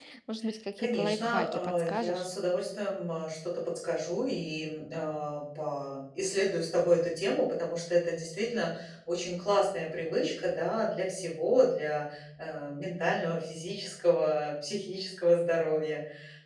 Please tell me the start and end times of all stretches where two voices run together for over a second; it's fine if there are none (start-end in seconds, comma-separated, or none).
0.8-2.2